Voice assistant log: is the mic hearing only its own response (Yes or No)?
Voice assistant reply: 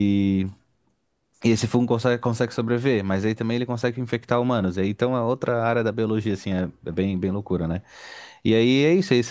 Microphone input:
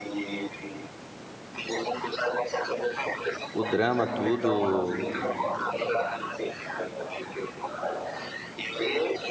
No